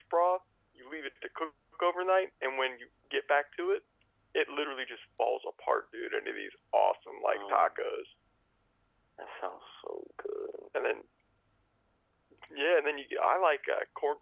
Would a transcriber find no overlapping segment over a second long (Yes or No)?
Yes